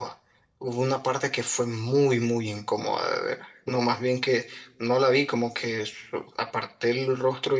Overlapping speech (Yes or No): No